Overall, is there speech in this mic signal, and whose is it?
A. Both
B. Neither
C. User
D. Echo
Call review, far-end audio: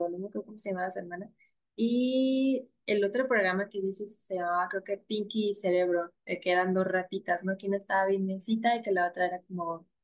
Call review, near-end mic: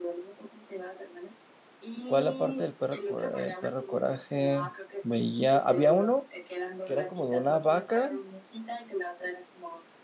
A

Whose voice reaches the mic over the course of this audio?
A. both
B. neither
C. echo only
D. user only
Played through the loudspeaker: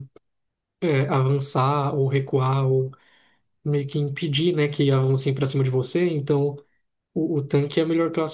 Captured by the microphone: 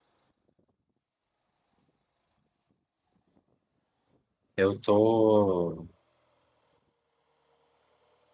D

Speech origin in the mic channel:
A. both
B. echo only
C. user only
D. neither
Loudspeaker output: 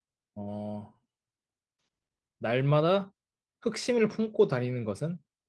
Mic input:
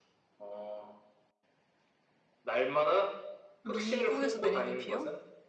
A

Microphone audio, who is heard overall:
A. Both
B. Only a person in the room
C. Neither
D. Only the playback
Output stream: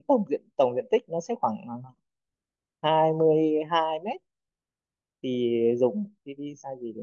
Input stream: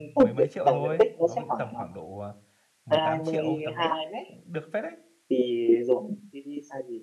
A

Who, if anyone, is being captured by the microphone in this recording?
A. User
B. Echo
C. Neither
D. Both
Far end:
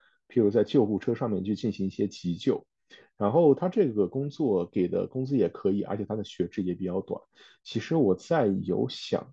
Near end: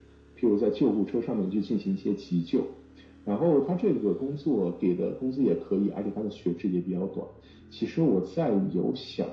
B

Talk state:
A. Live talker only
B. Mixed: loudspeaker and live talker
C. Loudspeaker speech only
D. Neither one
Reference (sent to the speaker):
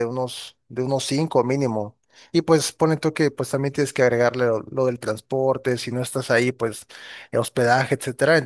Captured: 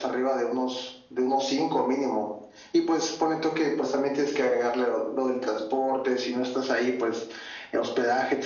C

